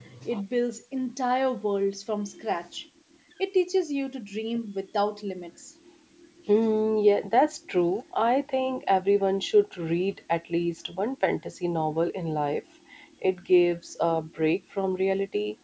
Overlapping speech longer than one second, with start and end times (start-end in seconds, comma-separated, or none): none